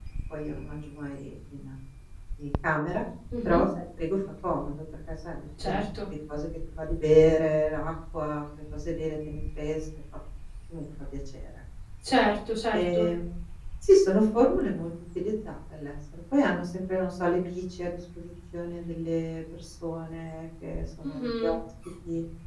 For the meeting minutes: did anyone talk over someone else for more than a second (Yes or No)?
No